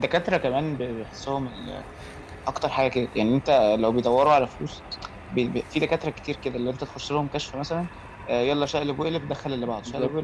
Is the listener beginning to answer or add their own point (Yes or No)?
Yes